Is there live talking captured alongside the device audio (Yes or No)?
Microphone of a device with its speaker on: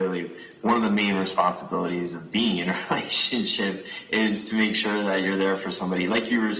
No